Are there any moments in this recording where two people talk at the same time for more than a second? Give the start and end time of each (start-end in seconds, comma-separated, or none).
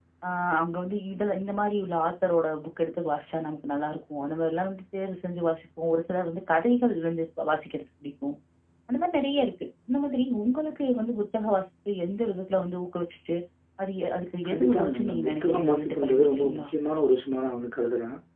14.5-16.6